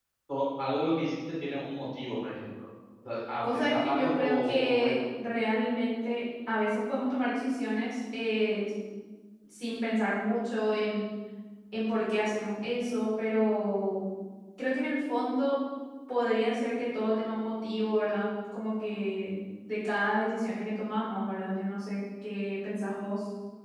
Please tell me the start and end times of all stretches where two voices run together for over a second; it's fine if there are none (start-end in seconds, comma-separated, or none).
3.4-5.0